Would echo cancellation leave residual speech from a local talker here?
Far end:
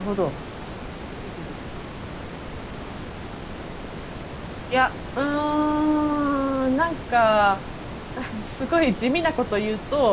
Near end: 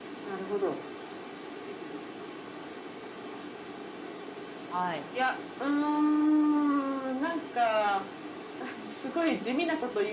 Yes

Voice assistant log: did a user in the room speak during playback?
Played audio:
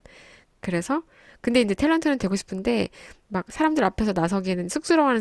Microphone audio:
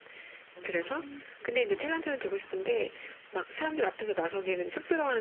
Yes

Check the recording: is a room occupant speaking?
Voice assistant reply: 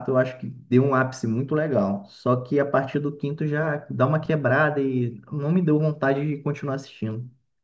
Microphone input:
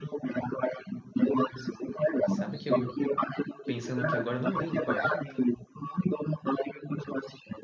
Yes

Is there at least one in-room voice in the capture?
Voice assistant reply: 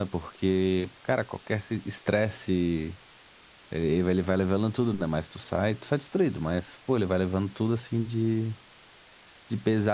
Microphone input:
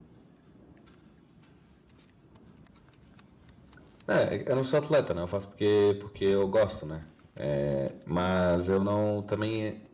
Yes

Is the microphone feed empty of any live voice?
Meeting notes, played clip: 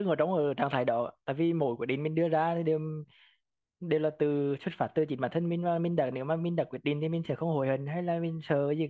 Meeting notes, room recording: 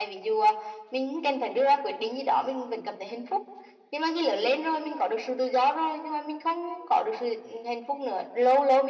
No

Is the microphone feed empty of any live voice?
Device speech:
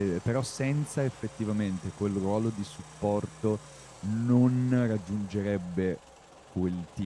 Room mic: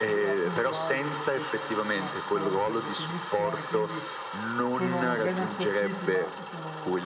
No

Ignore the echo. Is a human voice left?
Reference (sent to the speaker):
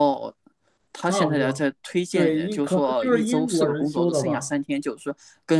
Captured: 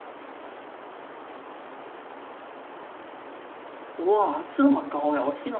Yes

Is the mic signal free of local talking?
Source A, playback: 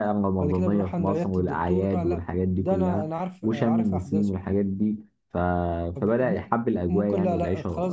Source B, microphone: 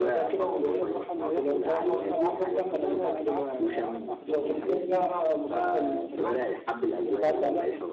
No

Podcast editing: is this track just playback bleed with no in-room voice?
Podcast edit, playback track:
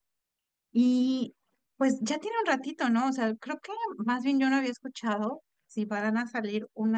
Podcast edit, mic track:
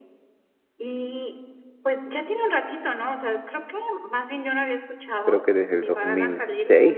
No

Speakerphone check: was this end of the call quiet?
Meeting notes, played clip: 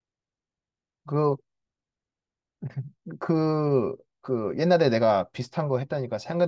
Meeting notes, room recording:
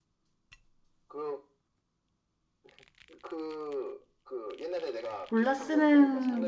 No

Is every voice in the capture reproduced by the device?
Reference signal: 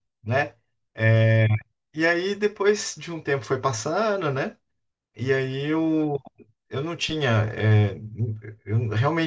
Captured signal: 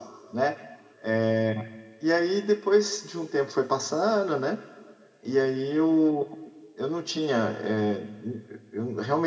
Yes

